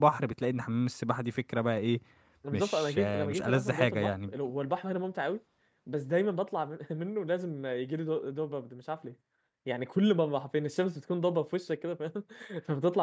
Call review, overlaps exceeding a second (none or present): present